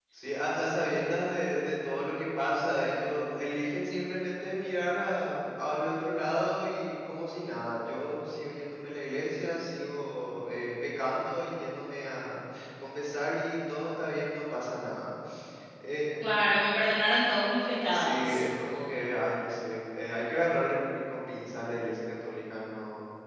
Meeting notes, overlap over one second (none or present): none